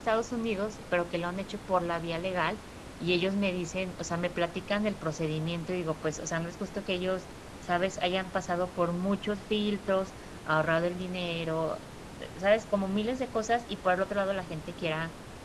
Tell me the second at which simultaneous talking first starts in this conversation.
none

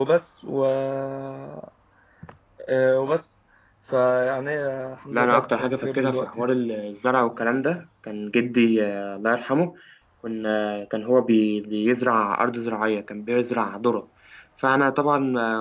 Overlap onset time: 5.1 s

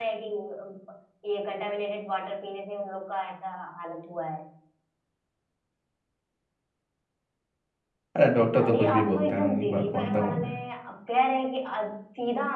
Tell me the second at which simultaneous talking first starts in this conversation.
8.6 s

